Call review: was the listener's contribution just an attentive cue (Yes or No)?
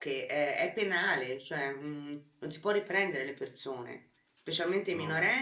Yes